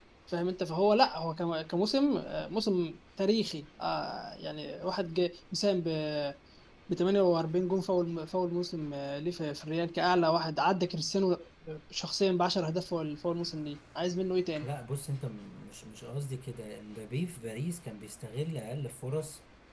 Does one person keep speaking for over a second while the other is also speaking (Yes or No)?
No